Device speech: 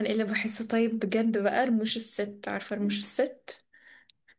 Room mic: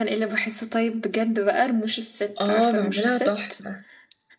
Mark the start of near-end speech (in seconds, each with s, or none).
2.4 s